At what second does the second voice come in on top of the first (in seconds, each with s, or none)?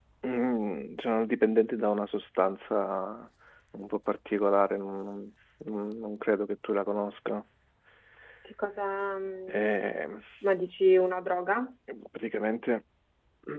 none